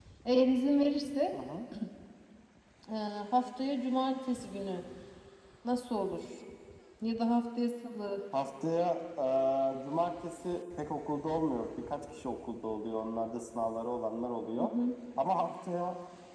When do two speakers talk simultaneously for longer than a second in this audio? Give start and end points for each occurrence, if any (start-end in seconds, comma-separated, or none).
none